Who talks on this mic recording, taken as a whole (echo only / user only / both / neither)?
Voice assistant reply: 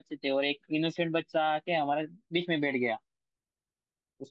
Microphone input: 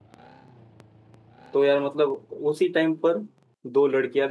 user only